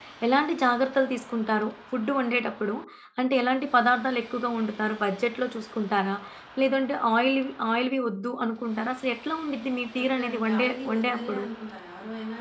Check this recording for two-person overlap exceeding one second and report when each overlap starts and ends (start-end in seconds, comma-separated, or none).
10.0-11.4